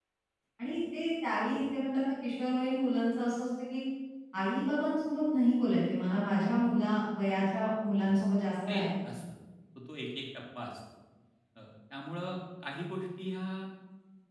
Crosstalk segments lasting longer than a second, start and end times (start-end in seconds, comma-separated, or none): none